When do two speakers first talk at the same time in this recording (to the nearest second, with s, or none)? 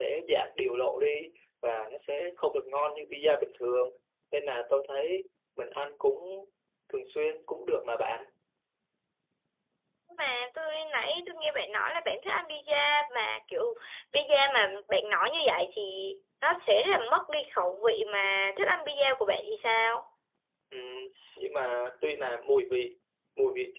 none